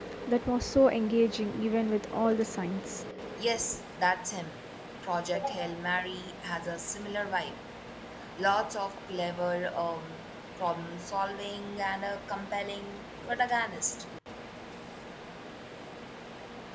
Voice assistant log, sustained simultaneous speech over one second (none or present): none